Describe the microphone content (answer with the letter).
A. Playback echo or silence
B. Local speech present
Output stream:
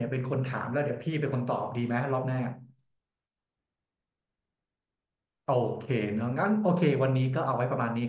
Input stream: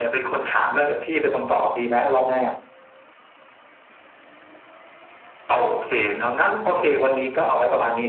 A